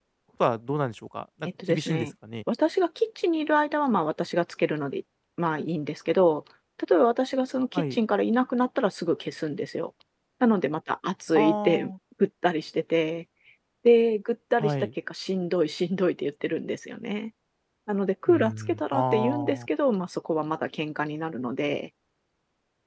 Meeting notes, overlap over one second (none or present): present